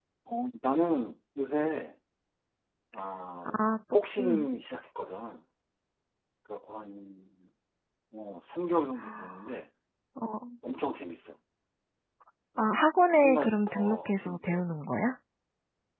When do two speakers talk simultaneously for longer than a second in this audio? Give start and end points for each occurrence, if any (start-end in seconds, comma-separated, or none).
13.1-14.6